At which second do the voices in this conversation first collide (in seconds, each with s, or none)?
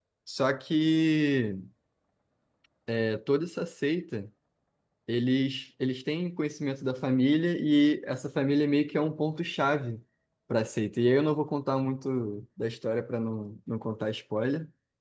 none